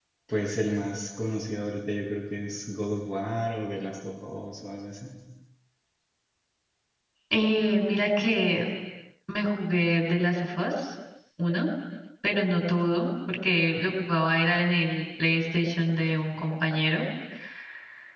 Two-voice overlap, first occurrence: none

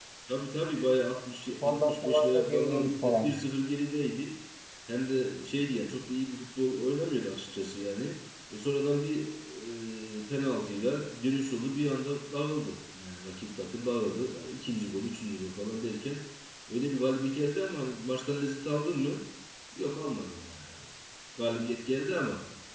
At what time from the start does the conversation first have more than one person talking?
1.6 s

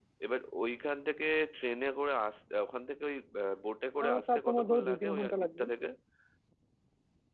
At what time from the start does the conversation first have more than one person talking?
4.0 s

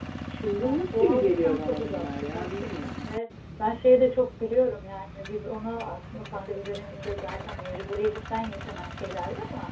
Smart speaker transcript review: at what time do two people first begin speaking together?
0.6 s

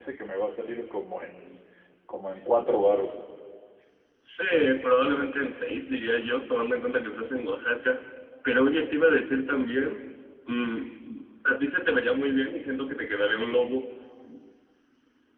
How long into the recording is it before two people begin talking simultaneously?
none

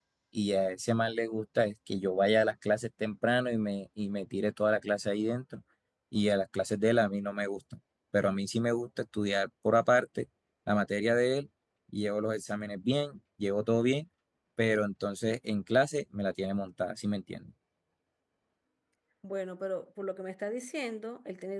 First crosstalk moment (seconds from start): none

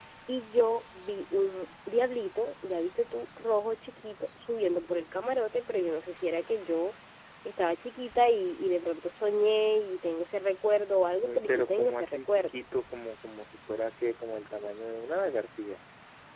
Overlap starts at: 11.2 s

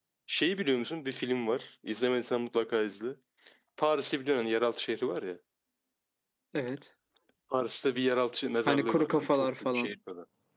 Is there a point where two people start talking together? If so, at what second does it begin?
8.7 s

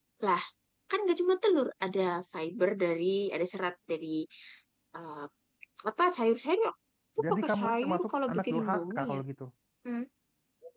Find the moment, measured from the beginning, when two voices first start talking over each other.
7.3 s

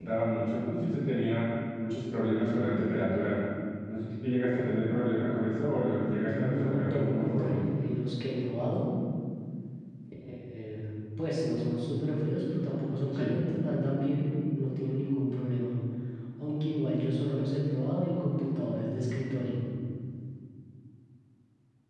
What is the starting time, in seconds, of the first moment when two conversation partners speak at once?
6.3 s

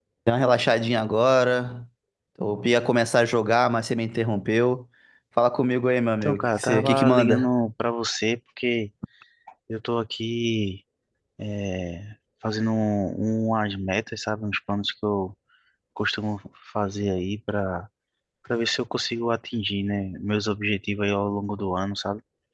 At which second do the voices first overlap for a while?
6.2 s

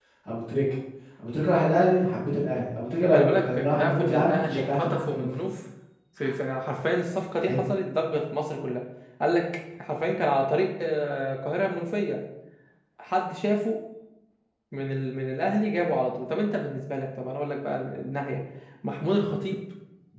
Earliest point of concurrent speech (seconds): 3.1 s

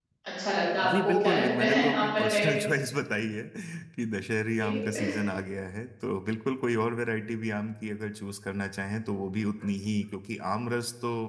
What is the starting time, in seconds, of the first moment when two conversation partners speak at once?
0.8 s

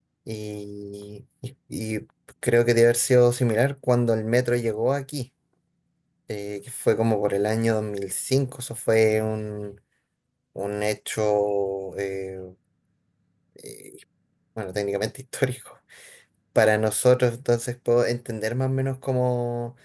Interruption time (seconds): none

